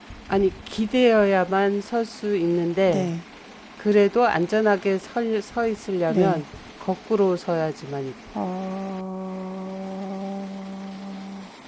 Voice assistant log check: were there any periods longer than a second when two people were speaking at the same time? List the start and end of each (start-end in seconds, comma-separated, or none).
none